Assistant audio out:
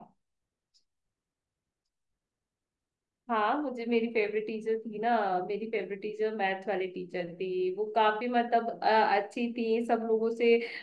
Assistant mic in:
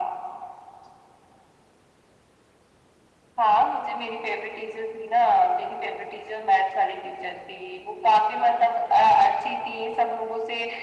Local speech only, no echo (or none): none